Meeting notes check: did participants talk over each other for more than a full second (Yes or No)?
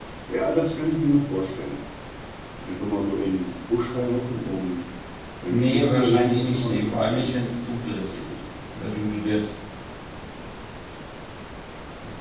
Yes